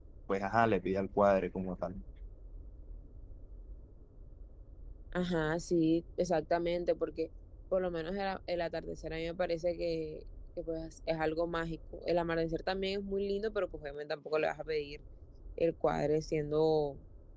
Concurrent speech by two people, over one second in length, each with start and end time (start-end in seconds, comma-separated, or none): none